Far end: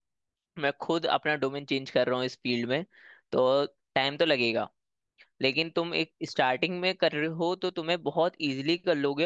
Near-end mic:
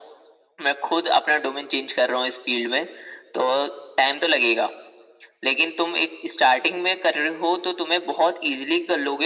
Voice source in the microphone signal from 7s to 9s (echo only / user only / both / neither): echo only